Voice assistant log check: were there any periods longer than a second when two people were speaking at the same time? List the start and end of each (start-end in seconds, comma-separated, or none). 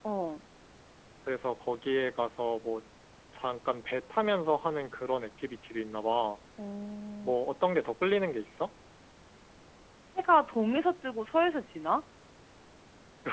none